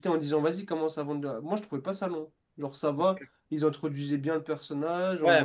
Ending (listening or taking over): taking over